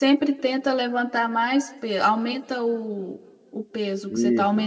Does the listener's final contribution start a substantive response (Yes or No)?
Yes